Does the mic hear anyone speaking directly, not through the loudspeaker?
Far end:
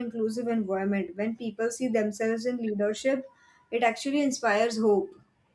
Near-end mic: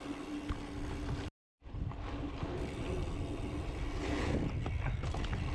No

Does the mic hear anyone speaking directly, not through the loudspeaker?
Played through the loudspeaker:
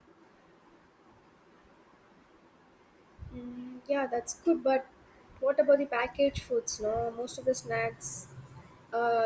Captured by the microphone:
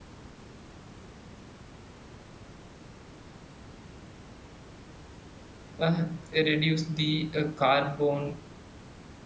Yes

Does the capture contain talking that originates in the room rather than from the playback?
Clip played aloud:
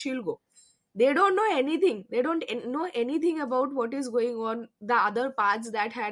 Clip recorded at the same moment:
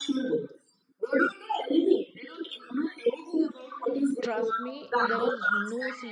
Yes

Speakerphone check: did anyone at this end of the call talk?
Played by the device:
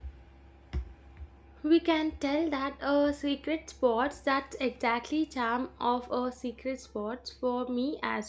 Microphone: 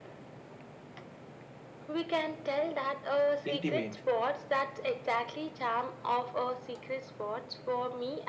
Yes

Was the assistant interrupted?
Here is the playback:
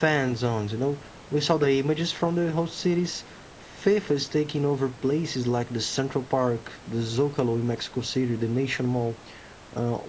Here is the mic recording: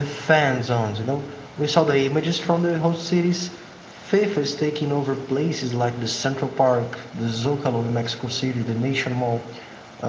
No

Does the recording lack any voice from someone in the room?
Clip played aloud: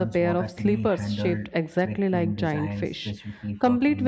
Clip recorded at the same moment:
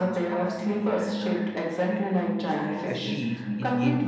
No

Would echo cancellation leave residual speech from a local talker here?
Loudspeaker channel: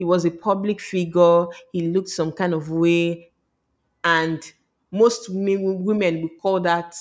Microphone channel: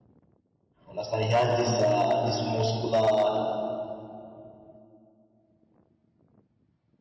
Yes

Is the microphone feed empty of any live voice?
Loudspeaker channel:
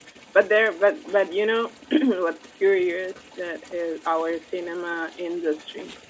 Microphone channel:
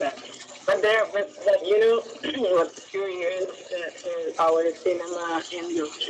Yes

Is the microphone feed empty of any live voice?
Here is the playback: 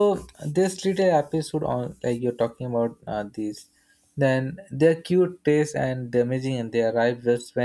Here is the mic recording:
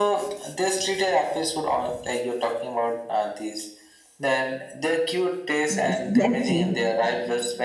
No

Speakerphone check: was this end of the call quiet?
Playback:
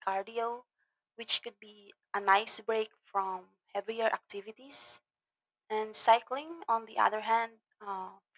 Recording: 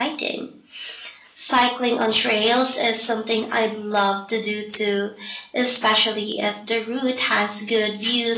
No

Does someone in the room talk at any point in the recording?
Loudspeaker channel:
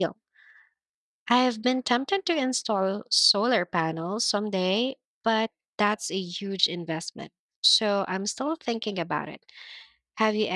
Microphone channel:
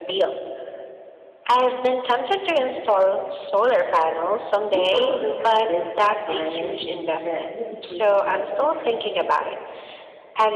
Yes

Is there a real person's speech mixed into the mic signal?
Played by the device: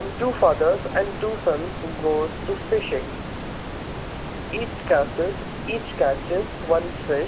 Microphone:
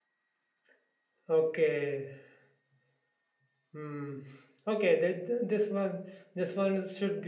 Yes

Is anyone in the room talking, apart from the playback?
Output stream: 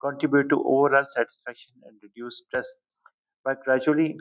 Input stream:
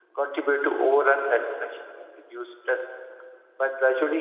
No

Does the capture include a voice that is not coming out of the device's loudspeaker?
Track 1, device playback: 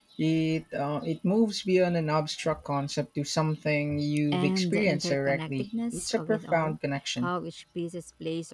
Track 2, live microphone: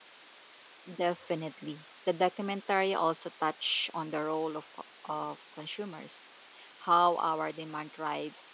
Yes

